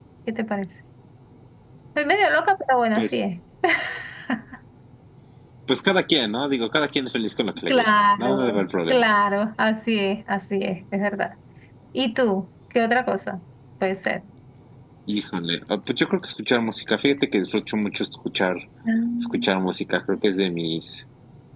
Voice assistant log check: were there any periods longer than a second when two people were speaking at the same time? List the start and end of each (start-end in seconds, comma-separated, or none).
7.7-9.1